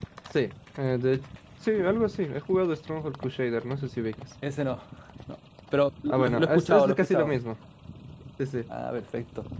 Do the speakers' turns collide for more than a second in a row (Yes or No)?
Yes